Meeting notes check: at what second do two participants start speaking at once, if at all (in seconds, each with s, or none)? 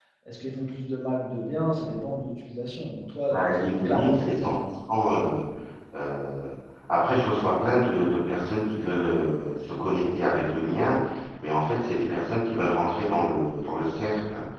3.3 s